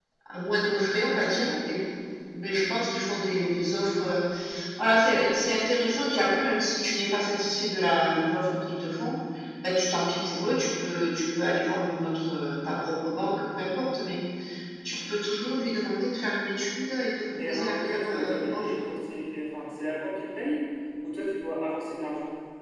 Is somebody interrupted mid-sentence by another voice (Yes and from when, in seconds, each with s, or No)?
Yes, from 17.3 s